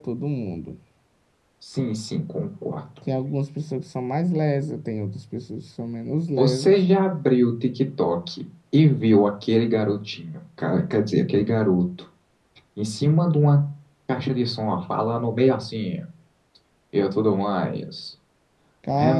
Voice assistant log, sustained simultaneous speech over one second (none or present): none